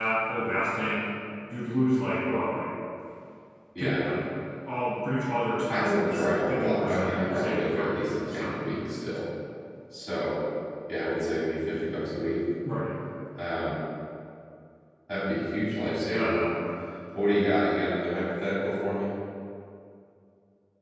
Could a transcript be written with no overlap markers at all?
No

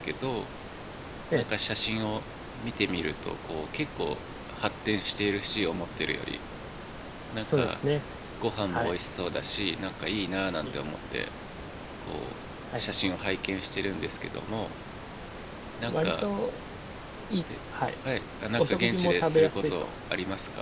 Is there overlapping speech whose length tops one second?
Yes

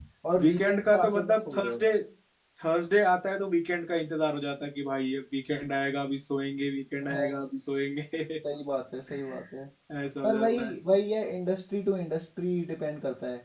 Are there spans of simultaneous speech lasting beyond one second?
Yes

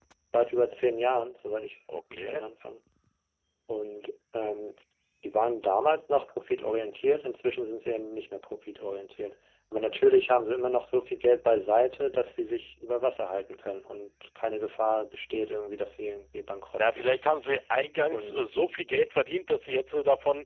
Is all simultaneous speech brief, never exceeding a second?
Yes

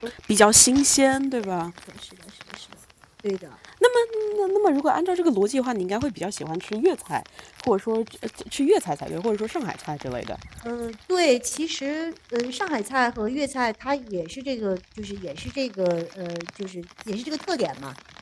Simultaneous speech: No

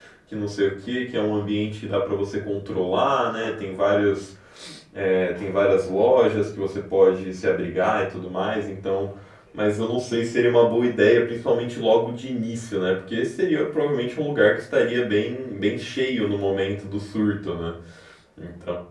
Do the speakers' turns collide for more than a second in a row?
No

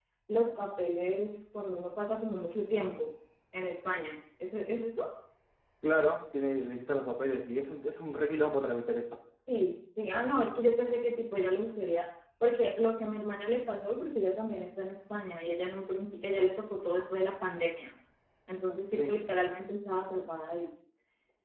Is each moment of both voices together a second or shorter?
Yes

